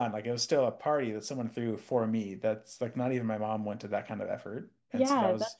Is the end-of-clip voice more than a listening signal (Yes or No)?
Yes